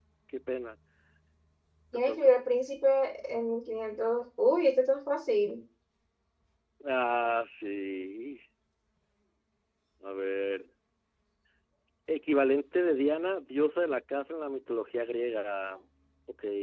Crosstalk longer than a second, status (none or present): none